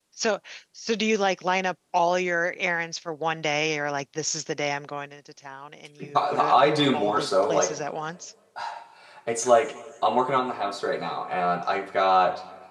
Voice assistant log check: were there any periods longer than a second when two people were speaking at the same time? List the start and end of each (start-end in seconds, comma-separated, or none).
6.1-7.8